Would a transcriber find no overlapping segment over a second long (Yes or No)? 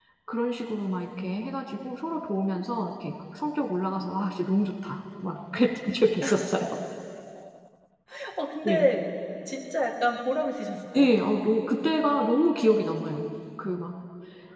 Yes